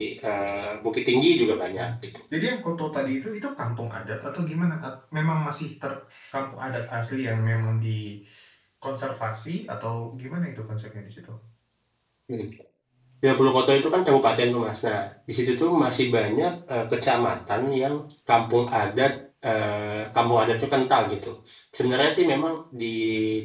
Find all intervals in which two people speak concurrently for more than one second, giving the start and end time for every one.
none

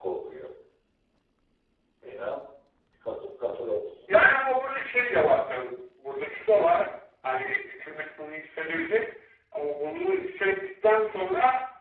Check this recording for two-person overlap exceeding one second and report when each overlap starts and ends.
none

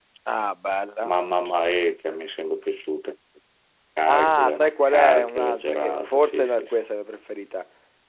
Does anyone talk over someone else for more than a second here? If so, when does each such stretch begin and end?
4.1-6.7

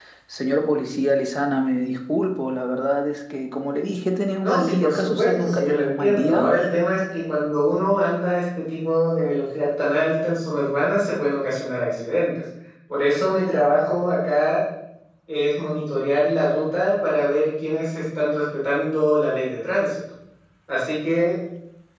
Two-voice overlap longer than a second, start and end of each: 4.4-6.5

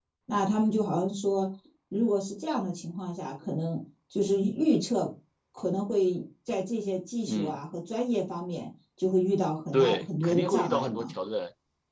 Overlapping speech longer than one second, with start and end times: 9.7-11.1

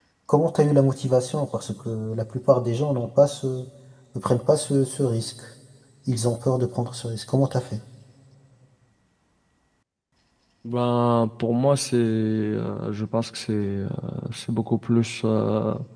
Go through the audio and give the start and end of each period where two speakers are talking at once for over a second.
none

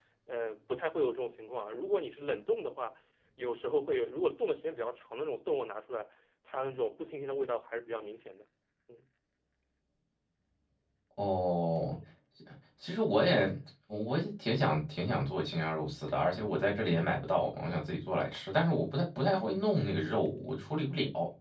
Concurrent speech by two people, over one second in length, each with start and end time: none

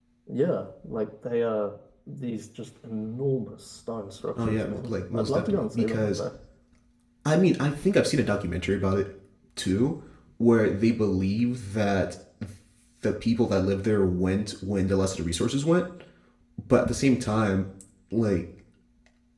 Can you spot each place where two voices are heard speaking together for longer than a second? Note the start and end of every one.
4.4-6.2

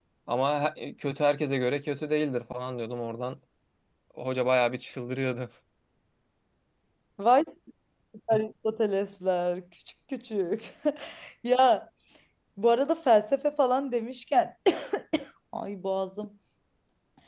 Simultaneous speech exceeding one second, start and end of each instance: none

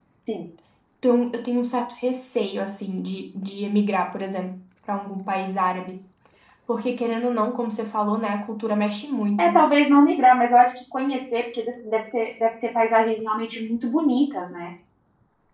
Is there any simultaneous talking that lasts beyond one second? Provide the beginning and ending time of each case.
none

